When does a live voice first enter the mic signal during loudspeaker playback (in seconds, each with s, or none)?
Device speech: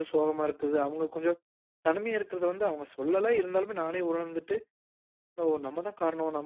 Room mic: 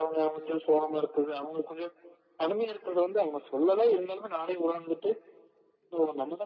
none